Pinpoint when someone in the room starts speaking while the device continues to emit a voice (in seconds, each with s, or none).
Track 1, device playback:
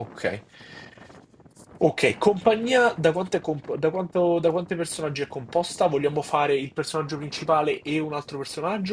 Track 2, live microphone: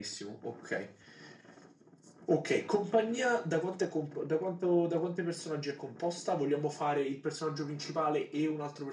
none